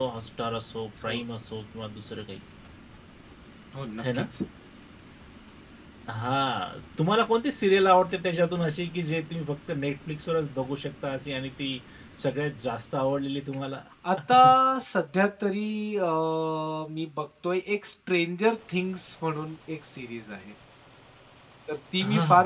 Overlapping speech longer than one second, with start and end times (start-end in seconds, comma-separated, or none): none